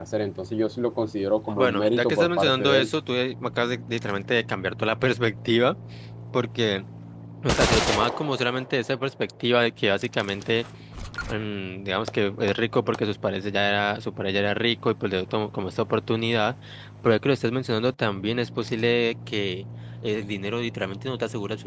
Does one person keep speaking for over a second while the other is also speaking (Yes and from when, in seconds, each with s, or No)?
Yes, from 1.6 s